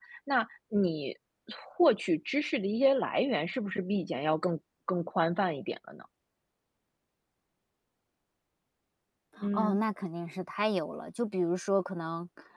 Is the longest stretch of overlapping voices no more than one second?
Yes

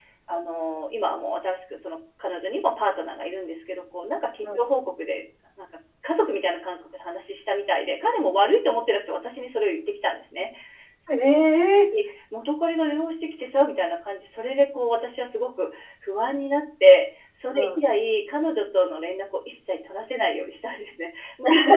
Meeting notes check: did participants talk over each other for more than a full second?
No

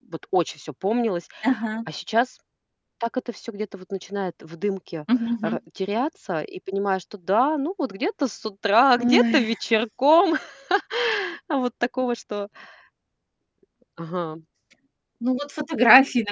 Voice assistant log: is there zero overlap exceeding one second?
Yes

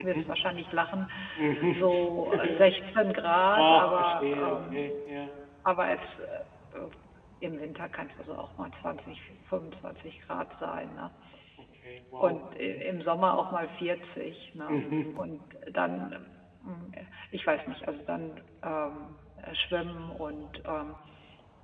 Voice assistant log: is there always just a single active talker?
No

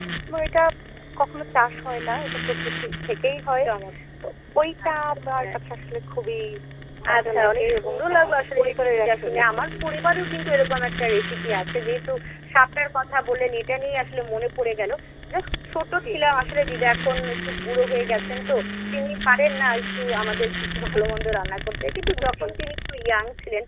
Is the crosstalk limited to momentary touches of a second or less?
No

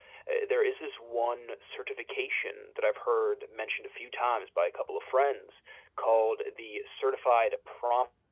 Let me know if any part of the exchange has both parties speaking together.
No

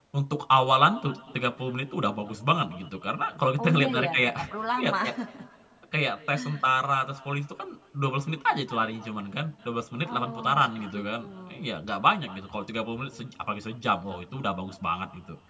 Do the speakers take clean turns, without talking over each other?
No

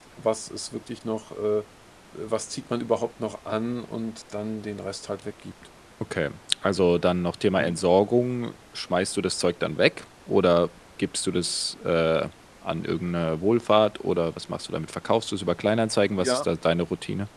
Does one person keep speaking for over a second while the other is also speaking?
No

